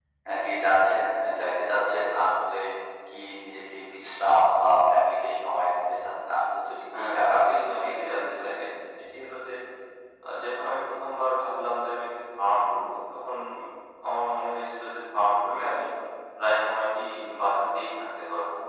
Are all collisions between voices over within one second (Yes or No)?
No